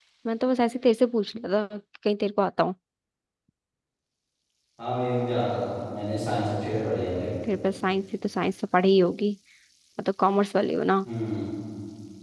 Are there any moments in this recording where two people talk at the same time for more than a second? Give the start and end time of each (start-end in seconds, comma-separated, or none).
none